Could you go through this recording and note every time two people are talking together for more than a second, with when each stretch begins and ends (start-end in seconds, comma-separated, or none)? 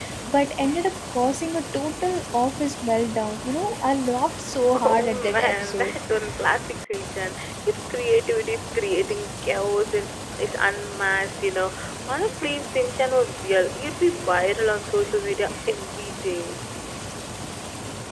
4.8-6.0